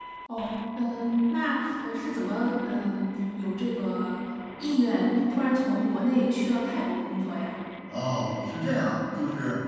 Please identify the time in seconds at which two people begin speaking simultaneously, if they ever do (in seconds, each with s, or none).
none